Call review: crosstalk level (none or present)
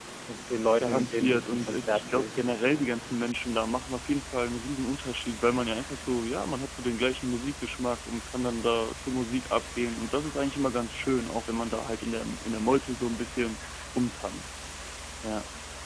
present